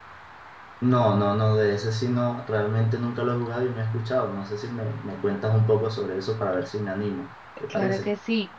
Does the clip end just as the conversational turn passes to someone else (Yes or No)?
Yes